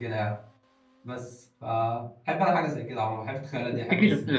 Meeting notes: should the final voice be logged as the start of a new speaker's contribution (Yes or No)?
Yes